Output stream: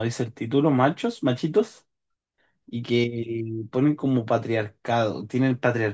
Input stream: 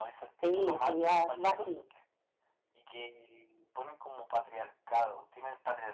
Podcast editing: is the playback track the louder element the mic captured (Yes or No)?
No